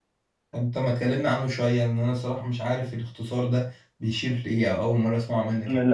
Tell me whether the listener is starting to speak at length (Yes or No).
Yes